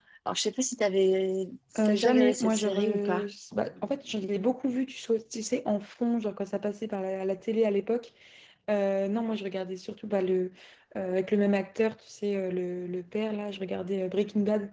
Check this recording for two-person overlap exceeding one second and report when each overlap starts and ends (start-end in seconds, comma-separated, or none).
1.8-3.3